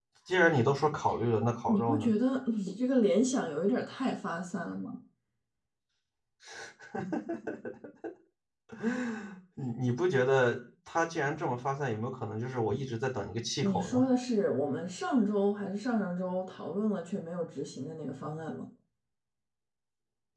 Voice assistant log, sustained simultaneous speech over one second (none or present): none